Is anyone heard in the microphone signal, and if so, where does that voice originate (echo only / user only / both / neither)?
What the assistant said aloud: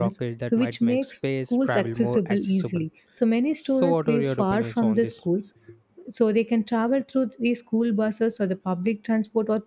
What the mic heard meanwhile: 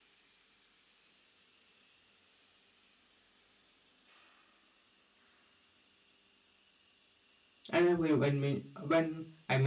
user only